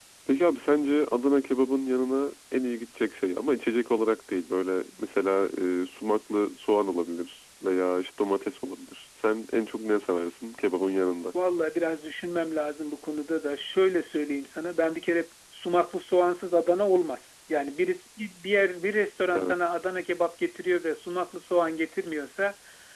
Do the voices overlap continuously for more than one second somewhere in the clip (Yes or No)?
No